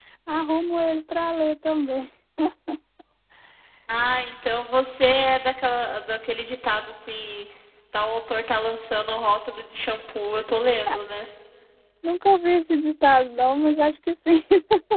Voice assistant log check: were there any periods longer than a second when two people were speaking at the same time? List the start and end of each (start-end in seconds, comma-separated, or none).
none